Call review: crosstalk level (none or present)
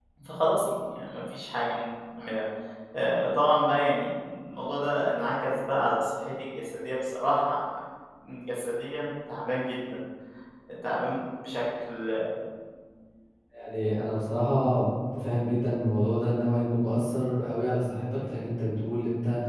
none